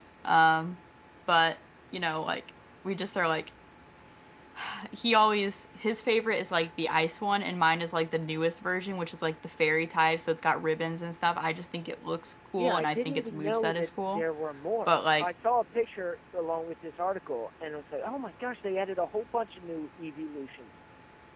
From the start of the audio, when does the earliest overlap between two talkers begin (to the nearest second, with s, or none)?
13 s